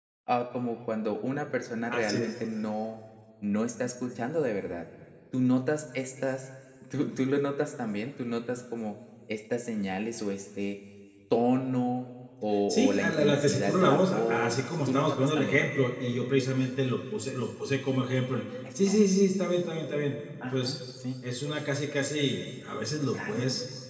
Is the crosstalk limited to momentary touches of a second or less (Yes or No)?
No